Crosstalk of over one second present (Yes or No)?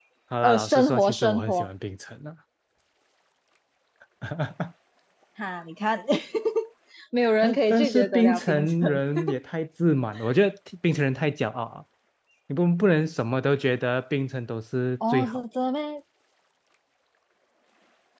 Yes